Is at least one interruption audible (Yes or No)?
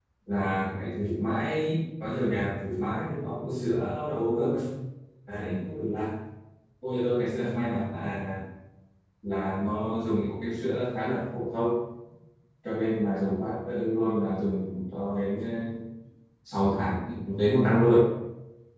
No